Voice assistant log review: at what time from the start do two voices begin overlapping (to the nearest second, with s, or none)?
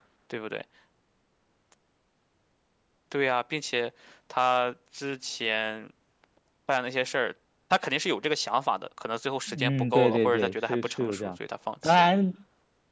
9 s